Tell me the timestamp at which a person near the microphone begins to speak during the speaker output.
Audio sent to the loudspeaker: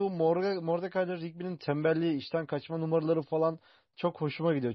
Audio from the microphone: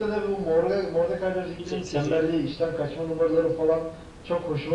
1.6 s

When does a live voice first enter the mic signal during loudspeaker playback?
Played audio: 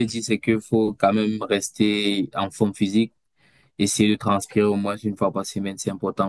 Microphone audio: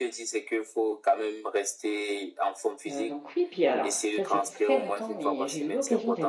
2.9 s

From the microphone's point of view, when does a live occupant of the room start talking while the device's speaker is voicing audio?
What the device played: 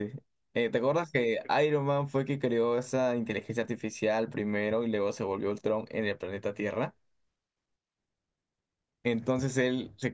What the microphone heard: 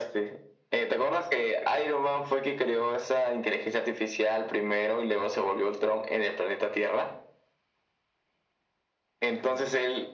none

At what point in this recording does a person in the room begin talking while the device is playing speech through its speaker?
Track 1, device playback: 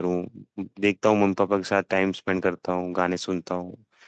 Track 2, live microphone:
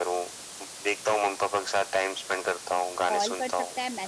3.1 s

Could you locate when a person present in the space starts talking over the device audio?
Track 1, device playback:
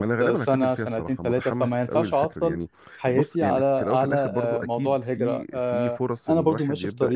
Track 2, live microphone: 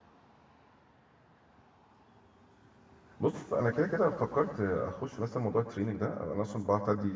3.2 s

